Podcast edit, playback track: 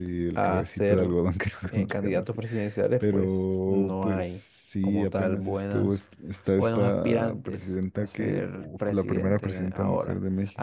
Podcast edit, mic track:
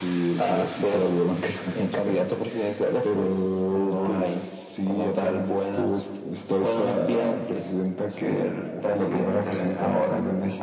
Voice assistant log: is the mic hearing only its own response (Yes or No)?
Yes